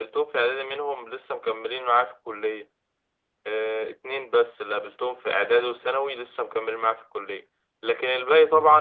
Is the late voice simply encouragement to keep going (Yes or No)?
Yes